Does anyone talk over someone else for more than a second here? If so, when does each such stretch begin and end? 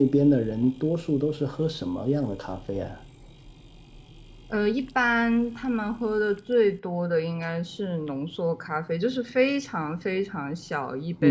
none

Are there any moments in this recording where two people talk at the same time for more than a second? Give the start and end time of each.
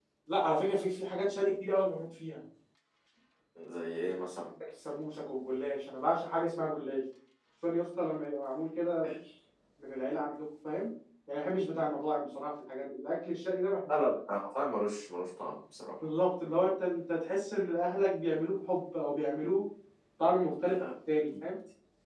none

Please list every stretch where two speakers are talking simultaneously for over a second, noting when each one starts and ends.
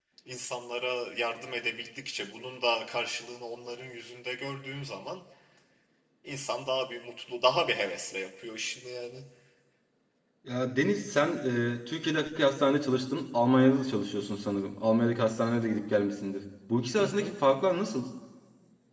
none

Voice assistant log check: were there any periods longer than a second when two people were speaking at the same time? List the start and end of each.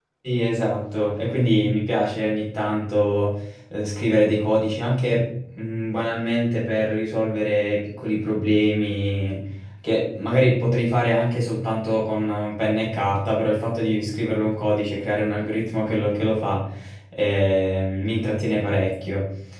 none

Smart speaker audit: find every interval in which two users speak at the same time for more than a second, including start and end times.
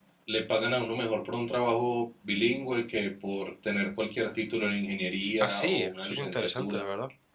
5.4-6.8

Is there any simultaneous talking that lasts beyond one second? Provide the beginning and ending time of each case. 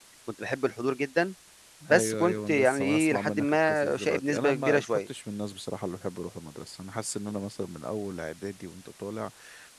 1.9-5.0

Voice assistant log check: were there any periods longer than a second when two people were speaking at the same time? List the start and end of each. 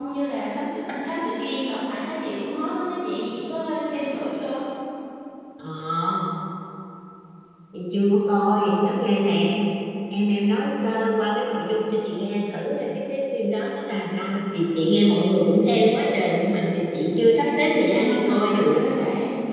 17.2-18.8

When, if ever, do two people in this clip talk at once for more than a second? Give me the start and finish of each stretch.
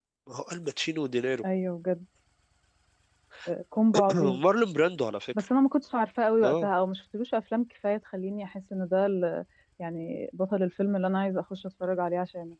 none

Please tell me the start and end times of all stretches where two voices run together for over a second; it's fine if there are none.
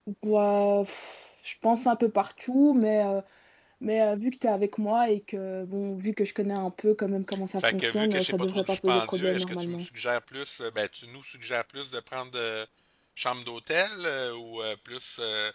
7.6-9.9

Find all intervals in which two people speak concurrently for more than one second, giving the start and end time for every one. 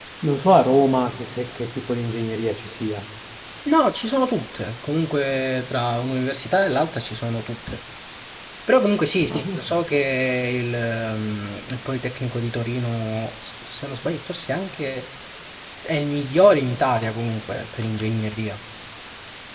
none

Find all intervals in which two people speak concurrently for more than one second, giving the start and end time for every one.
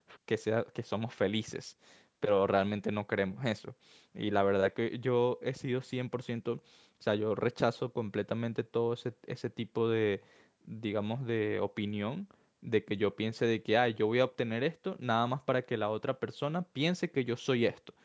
none

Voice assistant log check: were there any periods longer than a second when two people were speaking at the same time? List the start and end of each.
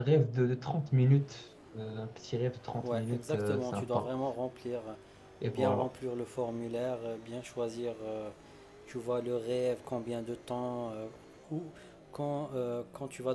2.8-4.1

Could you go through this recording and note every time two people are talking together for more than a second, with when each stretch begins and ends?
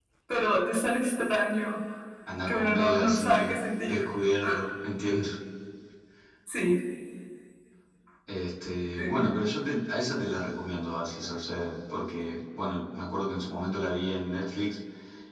2.5-4.1

